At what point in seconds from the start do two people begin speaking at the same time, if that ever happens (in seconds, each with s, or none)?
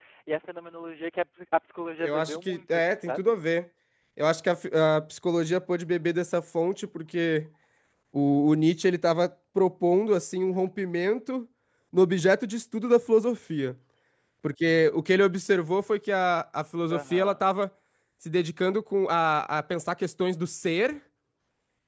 2.0 s